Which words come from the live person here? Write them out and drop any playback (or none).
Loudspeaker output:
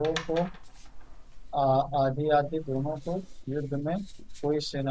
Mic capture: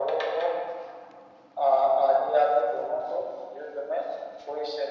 none